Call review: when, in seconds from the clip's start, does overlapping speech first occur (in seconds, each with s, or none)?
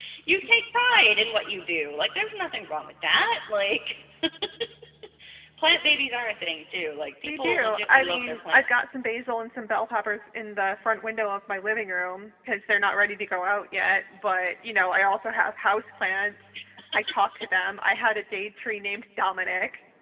7.3 s